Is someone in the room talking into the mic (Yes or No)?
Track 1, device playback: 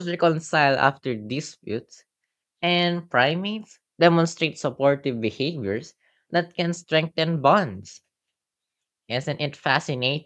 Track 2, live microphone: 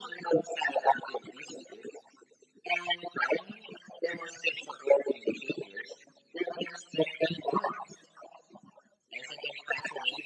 No